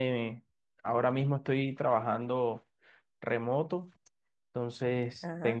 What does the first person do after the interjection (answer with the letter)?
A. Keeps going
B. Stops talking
A